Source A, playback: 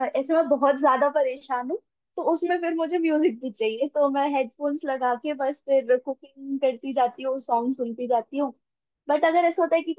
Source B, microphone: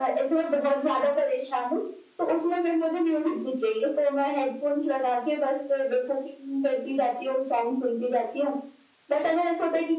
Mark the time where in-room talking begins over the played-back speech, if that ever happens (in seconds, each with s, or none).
none